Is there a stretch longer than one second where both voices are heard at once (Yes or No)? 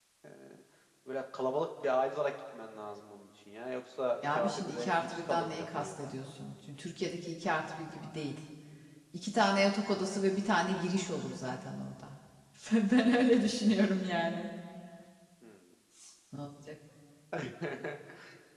Yes